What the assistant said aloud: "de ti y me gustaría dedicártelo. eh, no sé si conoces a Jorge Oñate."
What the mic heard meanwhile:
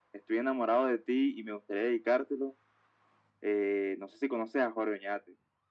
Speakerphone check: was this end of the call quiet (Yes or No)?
Yes